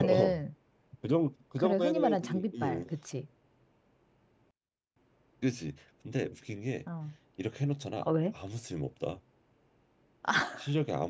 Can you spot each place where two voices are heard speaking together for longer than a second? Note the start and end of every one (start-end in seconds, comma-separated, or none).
1.6-2.8